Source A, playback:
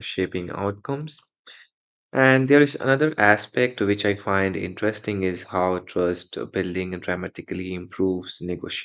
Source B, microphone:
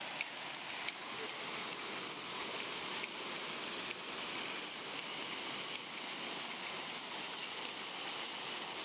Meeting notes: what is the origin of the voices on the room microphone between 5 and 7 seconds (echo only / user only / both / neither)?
neither